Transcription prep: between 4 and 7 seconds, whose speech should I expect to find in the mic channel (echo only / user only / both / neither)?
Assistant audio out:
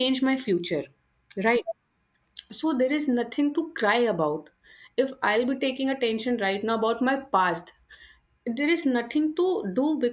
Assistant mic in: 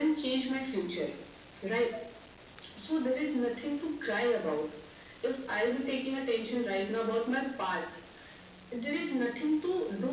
echo only